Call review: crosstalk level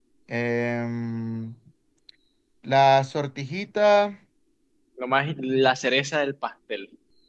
none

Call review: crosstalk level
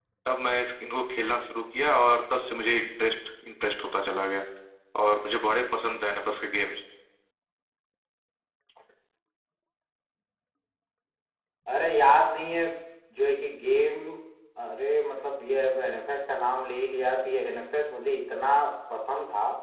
none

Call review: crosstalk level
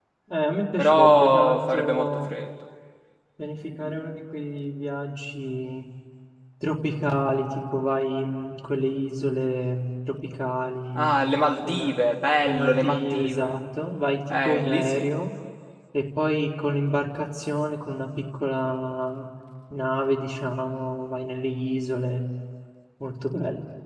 present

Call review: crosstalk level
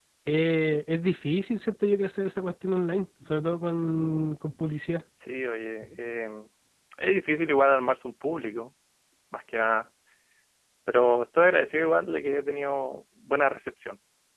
none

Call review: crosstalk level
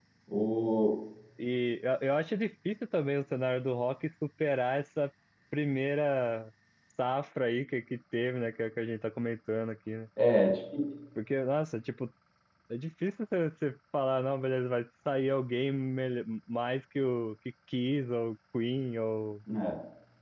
none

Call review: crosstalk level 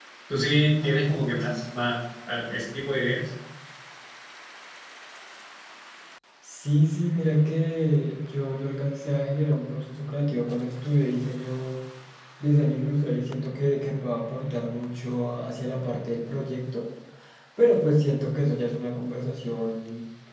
none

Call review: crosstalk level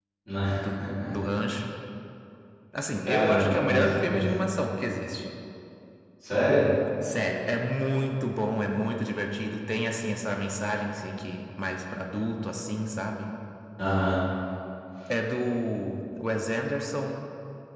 present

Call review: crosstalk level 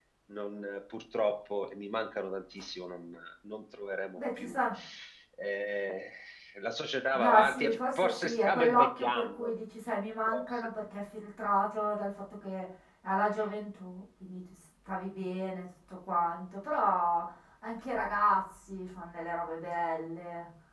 present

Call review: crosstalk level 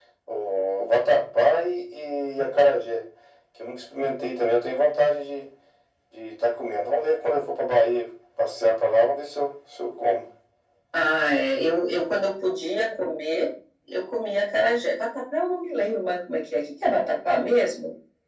none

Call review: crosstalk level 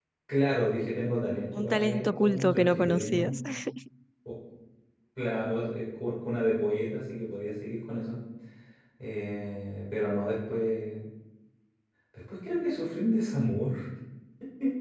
present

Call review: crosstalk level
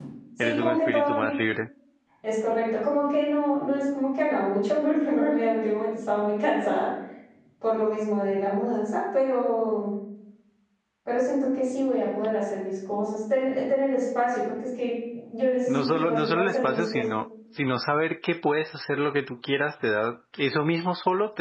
present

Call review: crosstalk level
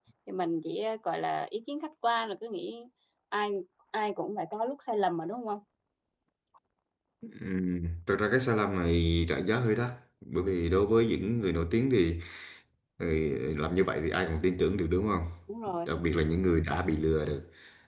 none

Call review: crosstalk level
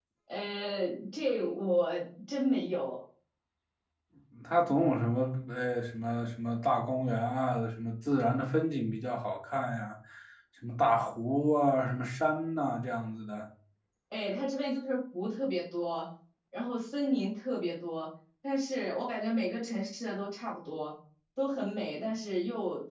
none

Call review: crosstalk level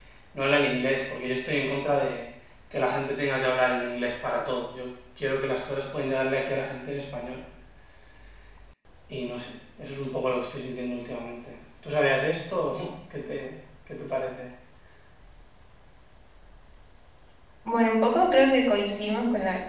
none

